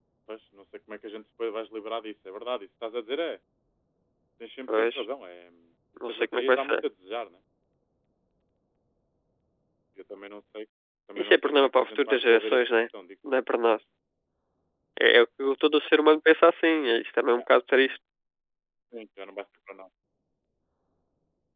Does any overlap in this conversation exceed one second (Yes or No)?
Yes